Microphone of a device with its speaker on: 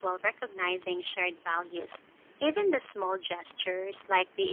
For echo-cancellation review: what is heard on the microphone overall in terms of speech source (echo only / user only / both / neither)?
echo only